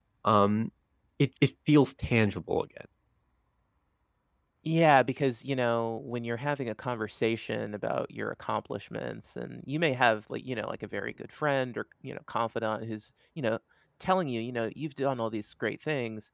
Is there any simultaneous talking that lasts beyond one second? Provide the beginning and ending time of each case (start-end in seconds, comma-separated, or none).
none